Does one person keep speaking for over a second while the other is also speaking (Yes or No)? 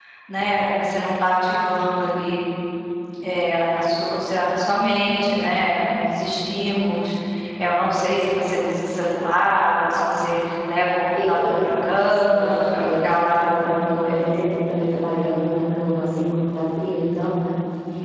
Yes